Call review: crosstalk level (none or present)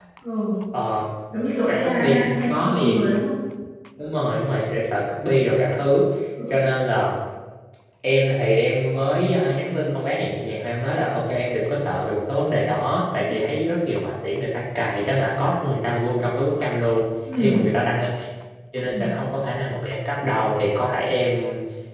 present